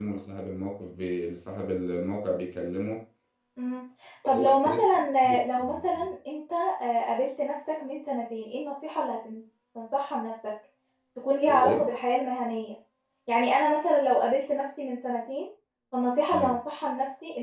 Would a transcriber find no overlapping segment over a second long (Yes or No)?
Yes